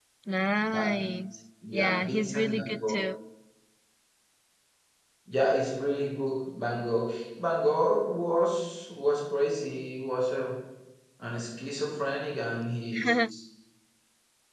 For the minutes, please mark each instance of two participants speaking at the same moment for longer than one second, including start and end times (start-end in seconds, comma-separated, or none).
1.8-3.0